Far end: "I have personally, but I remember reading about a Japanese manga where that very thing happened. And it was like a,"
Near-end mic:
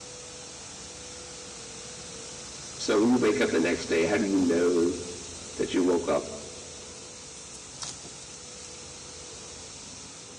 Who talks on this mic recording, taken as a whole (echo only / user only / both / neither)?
user only